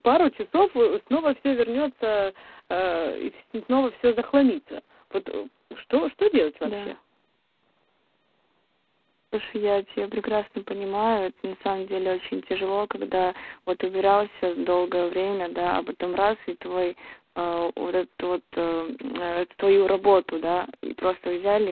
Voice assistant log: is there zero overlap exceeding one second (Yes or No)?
Yes